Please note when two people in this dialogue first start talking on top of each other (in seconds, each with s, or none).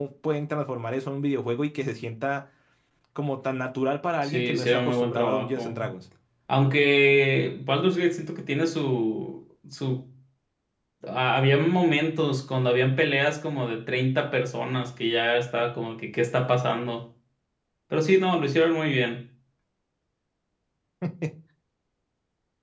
4.2 s